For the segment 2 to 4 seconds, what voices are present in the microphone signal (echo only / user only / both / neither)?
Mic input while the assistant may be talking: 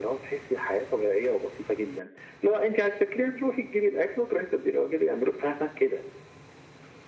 echo only